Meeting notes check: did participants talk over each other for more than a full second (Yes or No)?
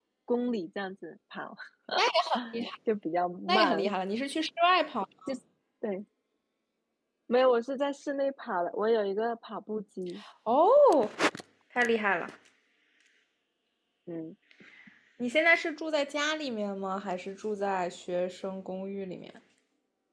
No